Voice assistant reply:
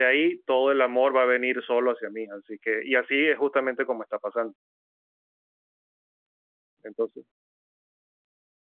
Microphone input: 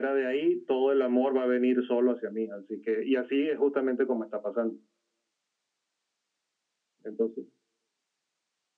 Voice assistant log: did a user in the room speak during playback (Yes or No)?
No